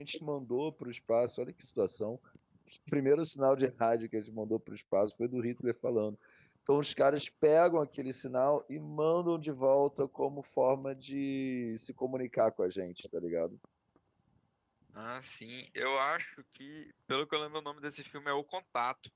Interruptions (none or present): none